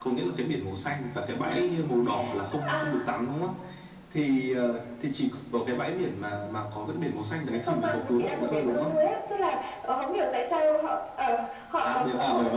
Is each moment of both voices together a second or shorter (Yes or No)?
No